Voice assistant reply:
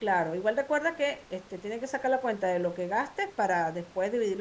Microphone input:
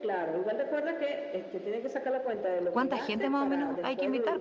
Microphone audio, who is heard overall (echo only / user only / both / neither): both